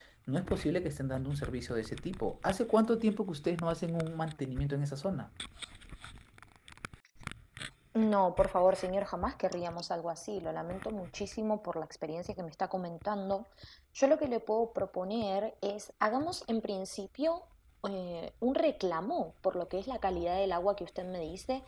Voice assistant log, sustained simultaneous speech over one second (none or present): none